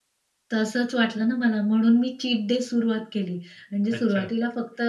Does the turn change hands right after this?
No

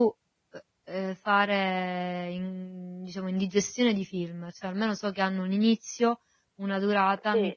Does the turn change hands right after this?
No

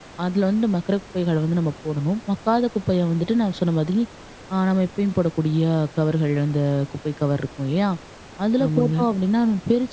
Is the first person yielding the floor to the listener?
No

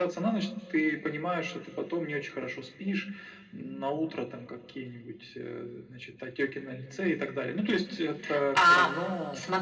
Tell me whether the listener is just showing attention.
No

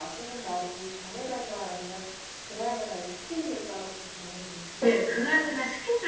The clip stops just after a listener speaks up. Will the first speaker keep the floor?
No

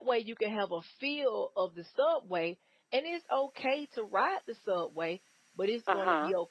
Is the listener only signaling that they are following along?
Yes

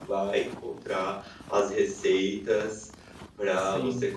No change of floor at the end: Yes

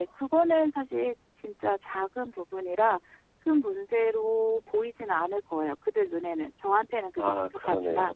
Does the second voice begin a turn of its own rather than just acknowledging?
Yes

